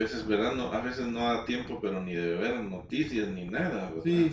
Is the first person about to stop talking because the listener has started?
Yes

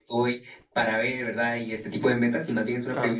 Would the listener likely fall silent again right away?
Yes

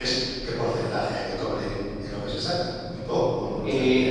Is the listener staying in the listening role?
No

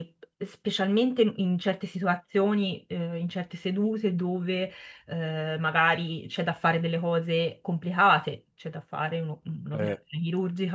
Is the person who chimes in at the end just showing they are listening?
Yes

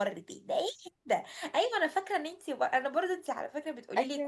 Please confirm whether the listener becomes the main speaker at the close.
No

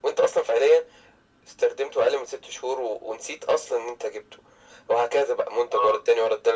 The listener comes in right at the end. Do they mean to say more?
No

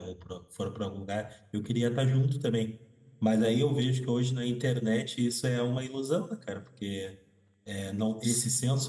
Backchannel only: Yes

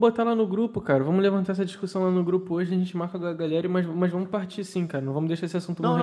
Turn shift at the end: Yes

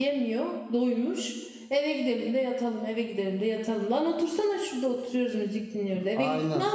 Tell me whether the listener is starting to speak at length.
Yes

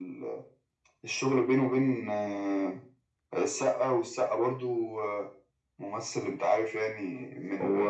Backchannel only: No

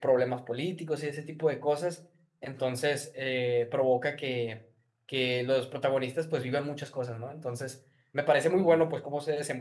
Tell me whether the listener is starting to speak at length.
No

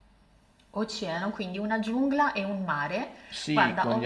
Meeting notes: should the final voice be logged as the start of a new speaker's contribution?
Yes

